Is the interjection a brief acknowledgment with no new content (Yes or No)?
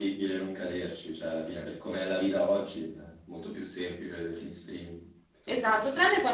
No